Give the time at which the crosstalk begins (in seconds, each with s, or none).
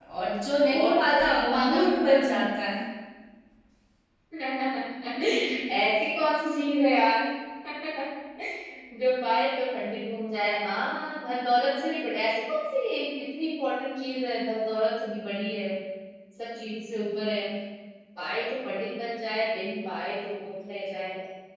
0.8 s